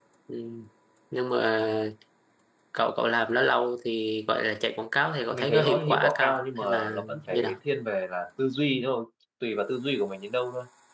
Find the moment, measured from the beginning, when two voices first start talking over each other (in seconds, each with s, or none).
5.3 s